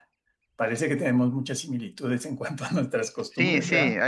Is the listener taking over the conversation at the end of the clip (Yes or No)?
Yes